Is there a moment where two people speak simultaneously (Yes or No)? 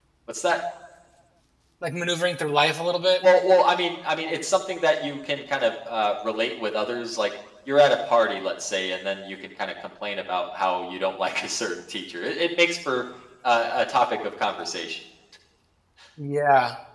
No